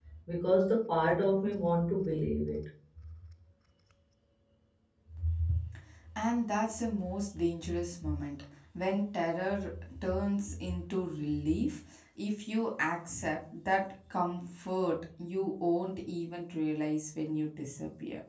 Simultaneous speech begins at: none

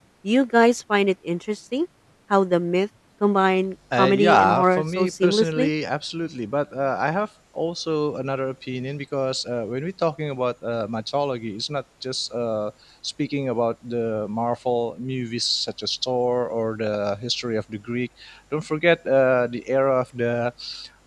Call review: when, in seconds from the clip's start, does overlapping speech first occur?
3.9 s

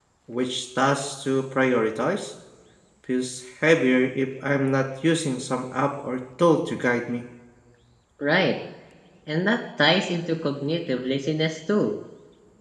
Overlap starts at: none

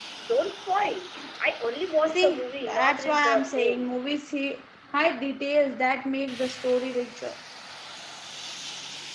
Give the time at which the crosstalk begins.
2.1 s

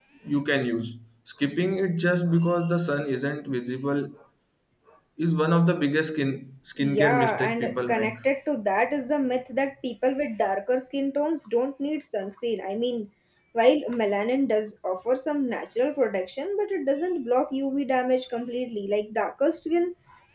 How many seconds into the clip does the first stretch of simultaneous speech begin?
6.8 s

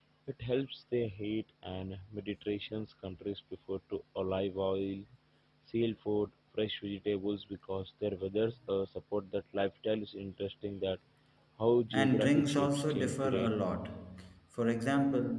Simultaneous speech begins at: 11.9 s

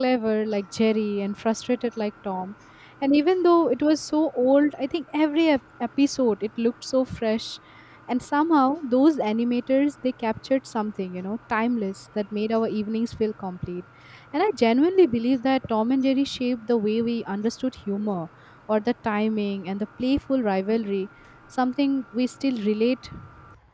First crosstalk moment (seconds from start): none

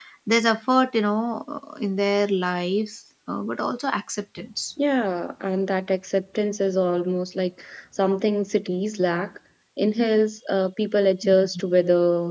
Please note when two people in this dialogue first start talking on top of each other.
none

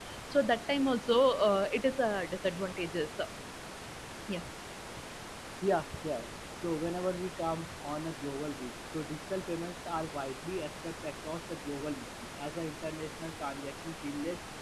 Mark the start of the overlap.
none

